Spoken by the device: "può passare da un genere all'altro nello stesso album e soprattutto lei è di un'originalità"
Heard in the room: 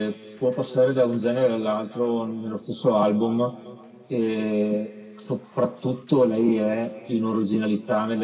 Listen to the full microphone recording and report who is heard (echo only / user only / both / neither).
echo only